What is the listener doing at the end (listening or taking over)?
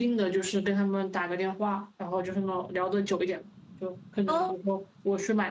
listening